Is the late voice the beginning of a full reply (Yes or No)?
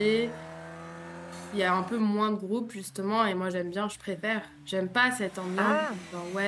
No